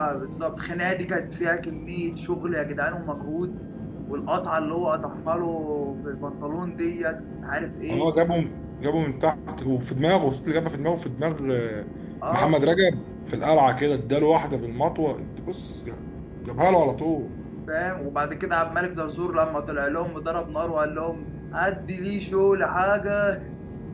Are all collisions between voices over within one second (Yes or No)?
Yes